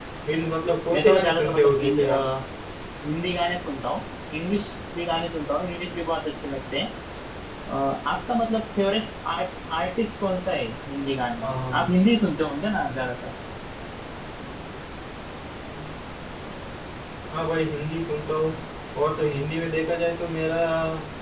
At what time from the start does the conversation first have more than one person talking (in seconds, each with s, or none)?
0.9 s